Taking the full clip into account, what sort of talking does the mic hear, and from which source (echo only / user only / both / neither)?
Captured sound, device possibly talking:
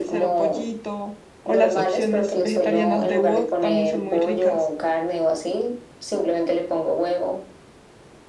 both